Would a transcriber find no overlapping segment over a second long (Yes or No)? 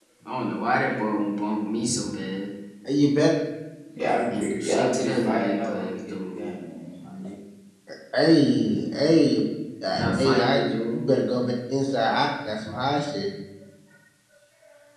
No